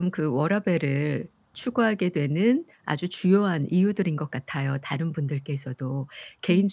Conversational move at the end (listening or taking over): listening